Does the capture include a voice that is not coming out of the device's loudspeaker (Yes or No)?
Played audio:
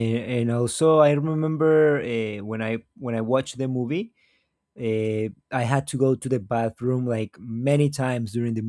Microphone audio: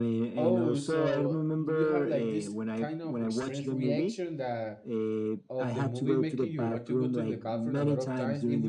Yes